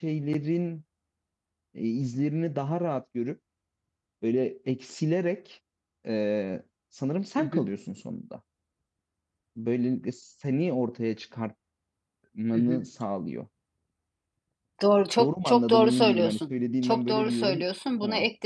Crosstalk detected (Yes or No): Yes